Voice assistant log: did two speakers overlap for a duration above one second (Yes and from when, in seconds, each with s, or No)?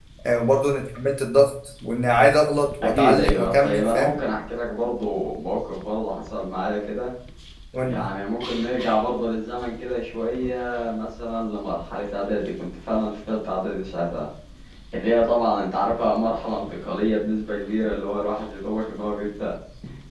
Yes, from 2.8 s